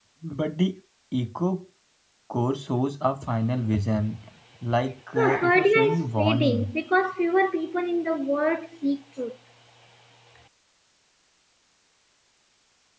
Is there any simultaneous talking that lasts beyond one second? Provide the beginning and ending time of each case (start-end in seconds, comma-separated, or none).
5.2-6.7